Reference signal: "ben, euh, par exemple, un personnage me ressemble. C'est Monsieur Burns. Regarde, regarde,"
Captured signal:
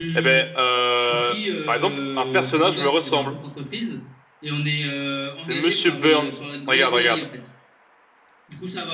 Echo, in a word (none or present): present